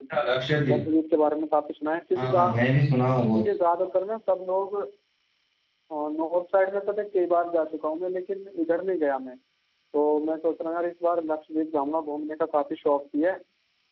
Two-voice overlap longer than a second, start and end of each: none

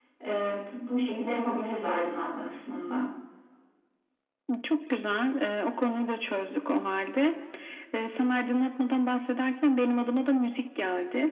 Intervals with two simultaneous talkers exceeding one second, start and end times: none

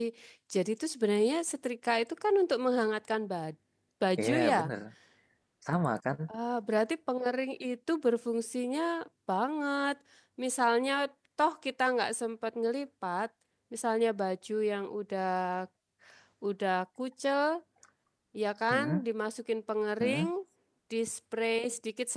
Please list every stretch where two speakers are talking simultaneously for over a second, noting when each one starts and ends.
none

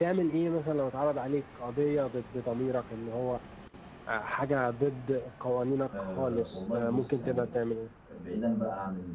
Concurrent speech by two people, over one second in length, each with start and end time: 6.0-7.5

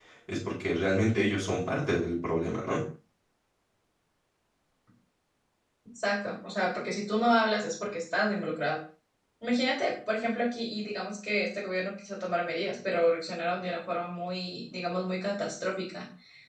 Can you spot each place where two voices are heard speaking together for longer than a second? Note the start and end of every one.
none

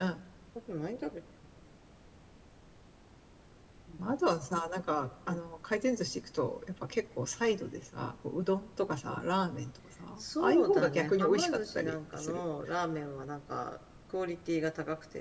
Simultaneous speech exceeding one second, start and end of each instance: 10.2-12.4

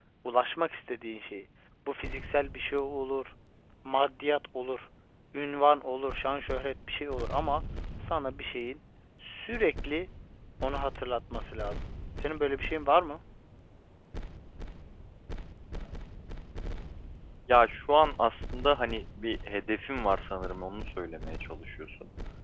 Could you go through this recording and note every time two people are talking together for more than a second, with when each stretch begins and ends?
none

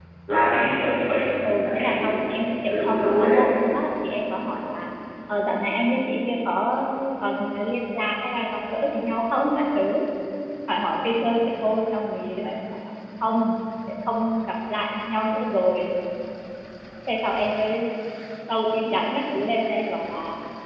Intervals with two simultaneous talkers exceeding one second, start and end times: 1.4-3.4

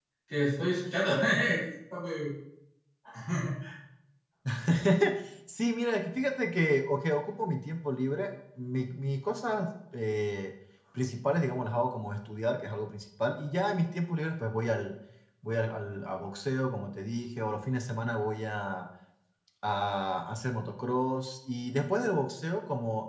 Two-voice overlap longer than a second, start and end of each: none

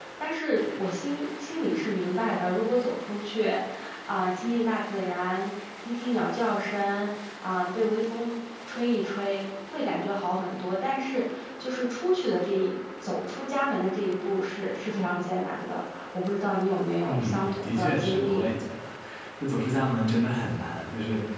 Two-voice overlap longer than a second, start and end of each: 17.0-18.5

